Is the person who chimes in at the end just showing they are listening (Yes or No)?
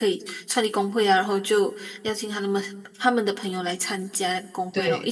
No